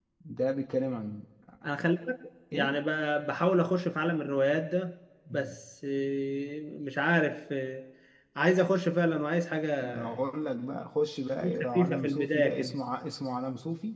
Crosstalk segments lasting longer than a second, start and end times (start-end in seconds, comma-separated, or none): 11.4-12.7